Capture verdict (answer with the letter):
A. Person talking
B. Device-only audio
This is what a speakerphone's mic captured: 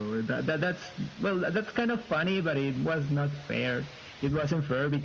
B